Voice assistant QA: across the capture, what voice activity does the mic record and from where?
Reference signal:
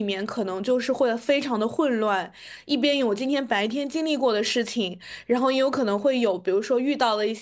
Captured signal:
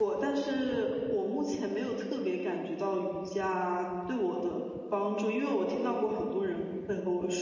user only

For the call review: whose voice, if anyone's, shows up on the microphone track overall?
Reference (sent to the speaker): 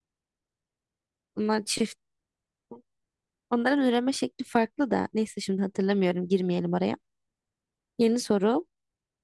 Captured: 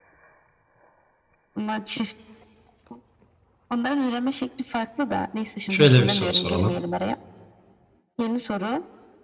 both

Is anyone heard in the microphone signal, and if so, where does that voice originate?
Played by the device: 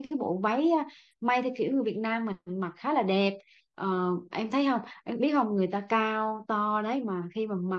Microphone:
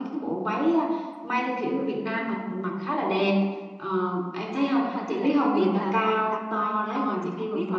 both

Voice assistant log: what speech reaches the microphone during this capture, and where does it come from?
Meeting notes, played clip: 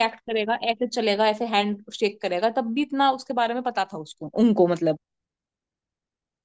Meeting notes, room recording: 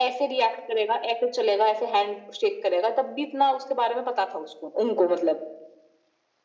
echo only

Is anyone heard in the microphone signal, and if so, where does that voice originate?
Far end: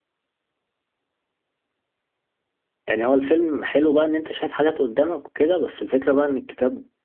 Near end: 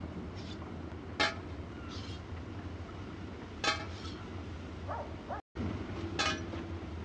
neither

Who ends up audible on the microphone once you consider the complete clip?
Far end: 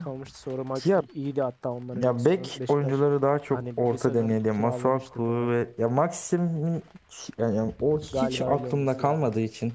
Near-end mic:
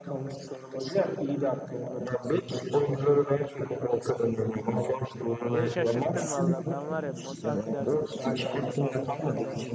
both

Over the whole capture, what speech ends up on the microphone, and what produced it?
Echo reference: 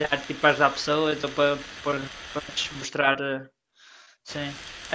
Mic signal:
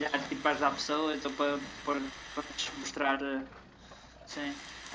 echo only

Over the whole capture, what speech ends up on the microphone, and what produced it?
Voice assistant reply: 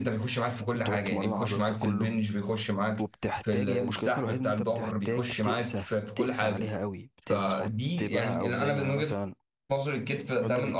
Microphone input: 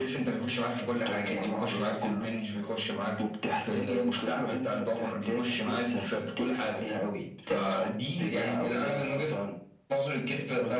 echo only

